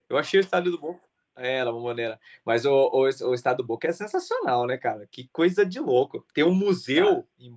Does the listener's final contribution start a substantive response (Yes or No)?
No